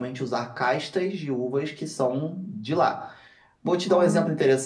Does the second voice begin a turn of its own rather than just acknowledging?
No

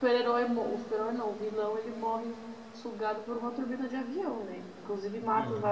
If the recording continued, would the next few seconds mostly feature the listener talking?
No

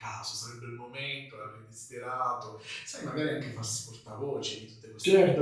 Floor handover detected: Yes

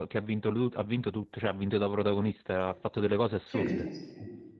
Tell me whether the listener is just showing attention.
No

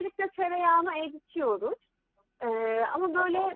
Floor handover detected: No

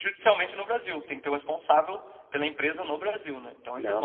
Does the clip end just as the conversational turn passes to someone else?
Yes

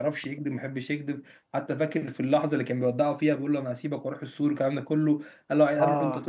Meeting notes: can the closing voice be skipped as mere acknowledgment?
Yes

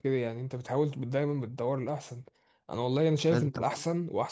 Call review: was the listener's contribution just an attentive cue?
Yes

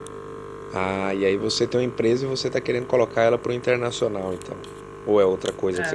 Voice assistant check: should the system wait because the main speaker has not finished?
No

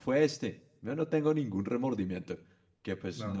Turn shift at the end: No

